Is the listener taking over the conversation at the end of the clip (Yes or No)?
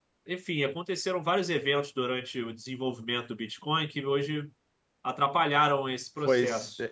Yes